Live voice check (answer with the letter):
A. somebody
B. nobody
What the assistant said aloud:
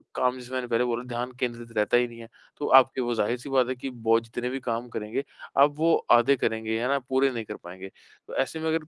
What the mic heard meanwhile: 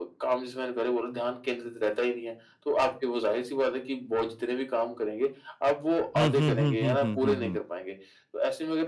A